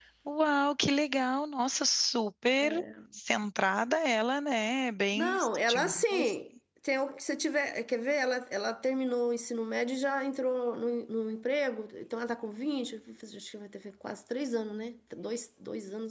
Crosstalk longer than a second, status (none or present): present